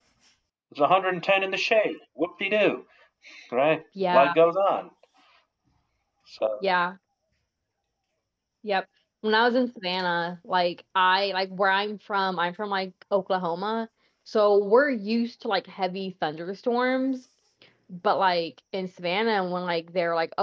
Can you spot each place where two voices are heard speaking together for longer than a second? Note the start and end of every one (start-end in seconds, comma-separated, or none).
none